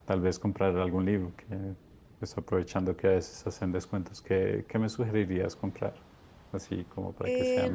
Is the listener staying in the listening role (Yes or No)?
No